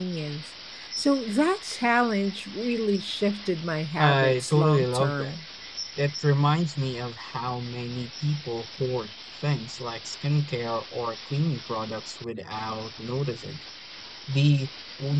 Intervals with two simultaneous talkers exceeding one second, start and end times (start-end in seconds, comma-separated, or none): 4.0-5.3